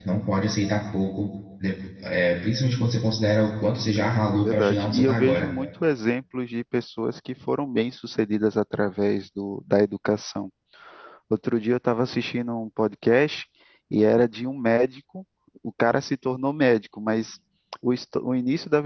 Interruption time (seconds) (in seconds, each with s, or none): 4.3 s